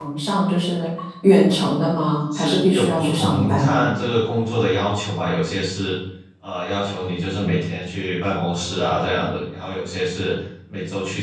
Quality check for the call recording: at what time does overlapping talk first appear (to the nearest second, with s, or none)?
2 s